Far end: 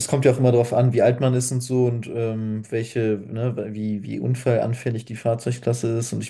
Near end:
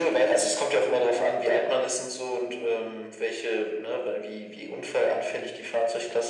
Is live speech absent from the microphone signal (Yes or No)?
Yes